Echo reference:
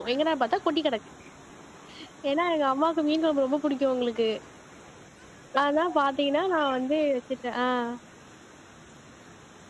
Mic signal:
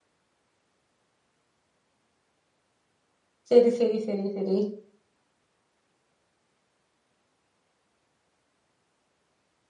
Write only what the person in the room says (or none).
செரி செரி செரி செரி